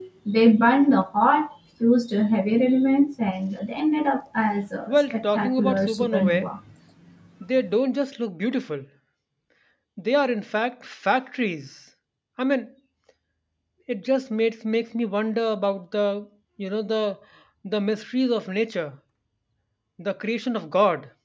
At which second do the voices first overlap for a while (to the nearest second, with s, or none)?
5 s